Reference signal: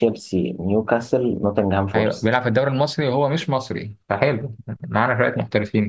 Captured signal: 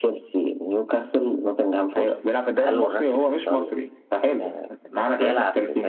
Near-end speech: present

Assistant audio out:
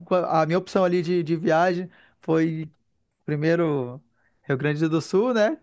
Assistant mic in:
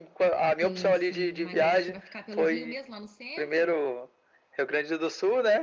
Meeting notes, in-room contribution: present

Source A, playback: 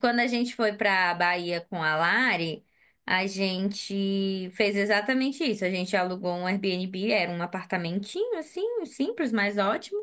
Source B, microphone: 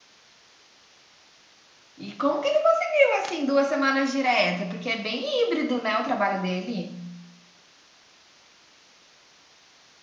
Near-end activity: present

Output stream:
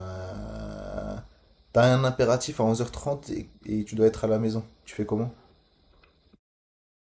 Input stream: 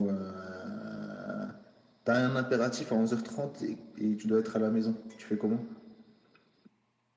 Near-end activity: none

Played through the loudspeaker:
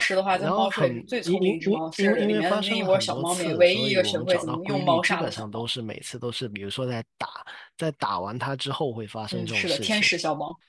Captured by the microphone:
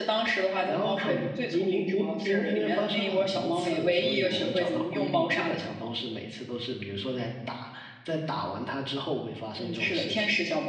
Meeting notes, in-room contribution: none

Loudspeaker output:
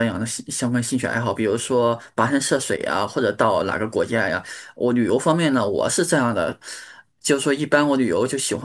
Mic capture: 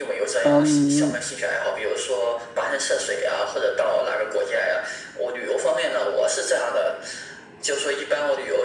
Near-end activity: present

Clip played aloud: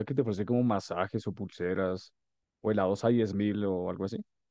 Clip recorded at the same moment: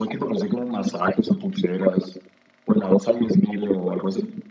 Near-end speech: none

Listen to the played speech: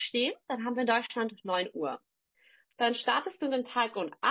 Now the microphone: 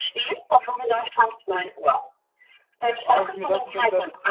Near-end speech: present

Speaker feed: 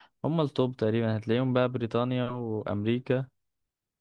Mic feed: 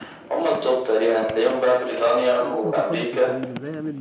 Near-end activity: present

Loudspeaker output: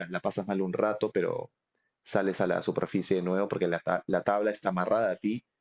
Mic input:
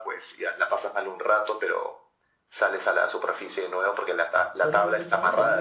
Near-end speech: present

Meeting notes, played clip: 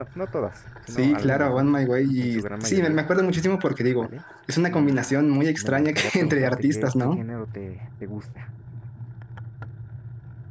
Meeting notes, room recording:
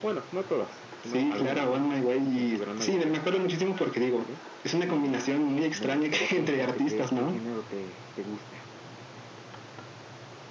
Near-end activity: none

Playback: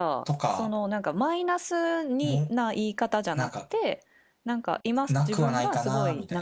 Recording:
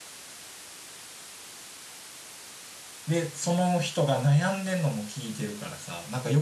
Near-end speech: present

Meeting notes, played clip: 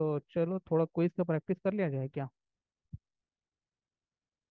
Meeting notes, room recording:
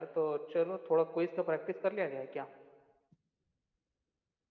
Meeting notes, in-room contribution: none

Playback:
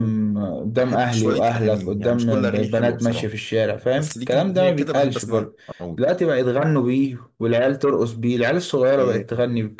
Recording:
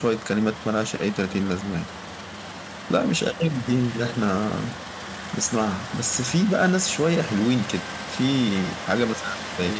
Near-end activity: present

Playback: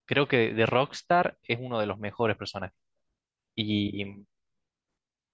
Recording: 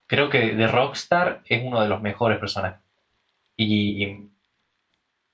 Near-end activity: none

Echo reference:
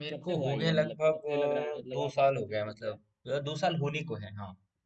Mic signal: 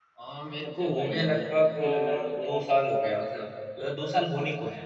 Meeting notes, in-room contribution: none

